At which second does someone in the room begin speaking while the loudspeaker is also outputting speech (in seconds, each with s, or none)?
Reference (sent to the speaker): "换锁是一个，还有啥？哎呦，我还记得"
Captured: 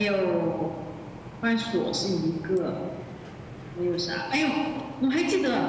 none